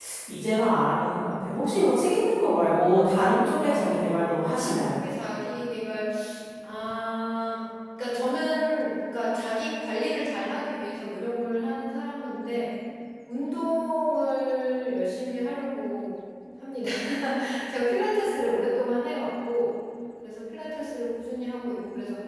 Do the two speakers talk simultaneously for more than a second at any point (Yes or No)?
Yes